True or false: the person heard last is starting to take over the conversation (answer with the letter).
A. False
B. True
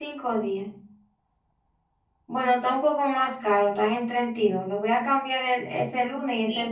B